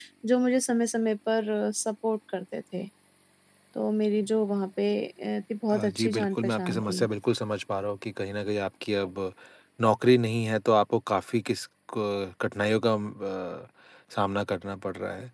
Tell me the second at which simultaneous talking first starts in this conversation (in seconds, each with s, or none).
5.7 s